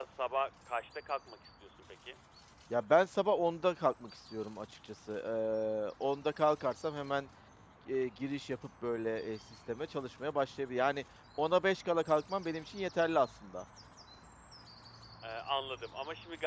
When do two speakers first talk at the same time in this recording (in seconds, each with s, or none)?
none